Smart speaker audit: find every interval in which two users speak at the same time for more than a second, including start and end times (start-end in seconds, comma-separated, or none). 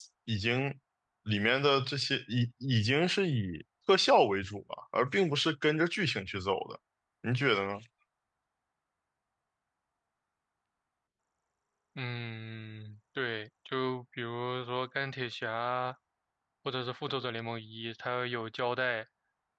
none